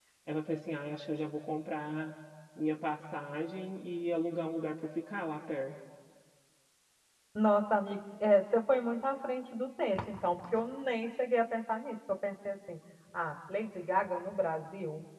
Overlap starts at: none

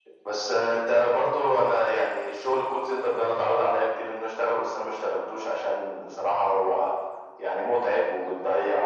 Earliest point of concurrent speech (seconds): none

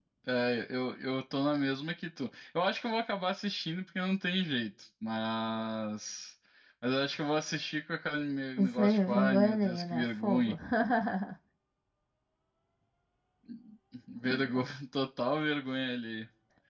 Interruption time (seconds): 8.6 s

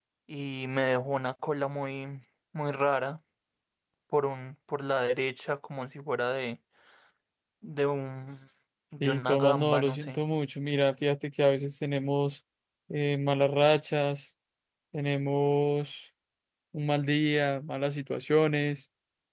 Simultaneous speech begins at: 9.0 s

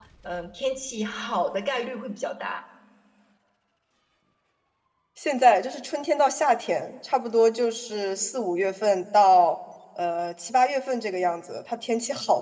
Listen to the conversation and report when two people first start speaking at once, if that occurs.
none

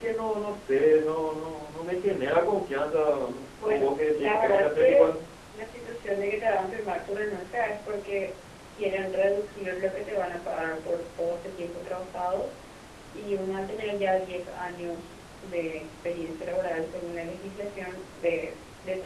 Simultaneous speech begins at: 3.6 s

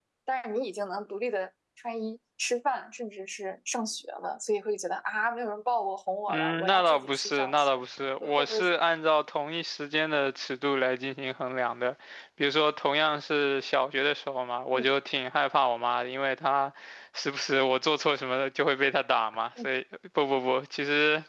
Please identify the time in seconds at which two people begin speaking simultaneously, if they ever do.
6.3 s

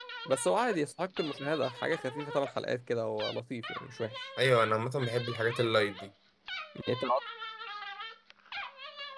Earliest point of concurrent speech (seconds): none

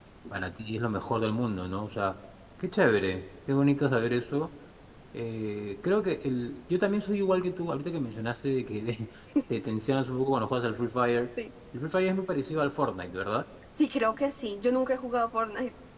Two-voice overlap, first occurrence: none

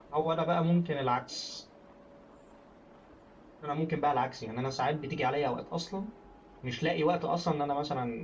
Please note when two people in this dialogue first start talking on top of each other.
none

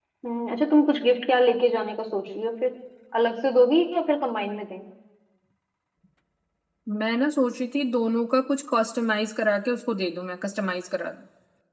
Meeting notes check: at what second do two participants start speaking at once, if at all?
none

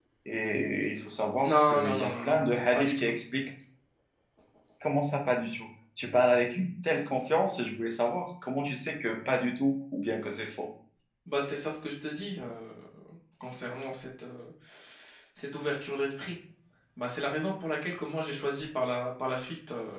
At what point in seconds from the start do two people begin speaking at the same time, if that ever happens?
1.4 s

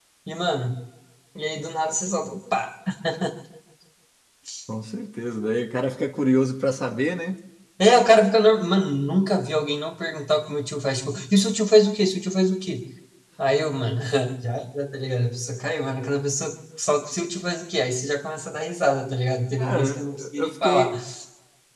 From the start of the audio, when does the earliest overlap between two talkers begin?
19.6 s

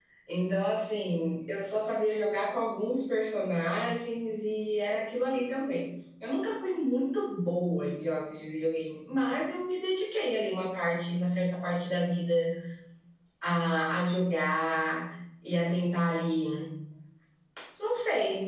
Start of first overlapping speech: none

